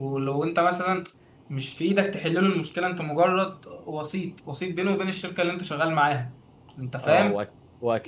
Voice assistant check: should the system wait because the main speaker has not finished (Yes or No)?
No